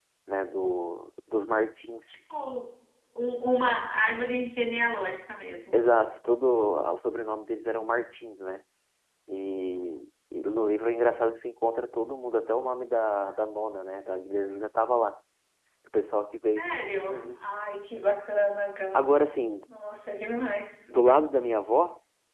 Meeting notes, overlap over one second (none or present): none